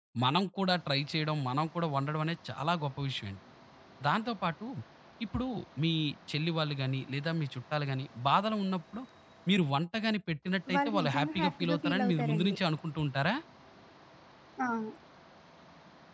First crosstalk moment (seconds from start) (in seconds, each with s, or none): 10.7 s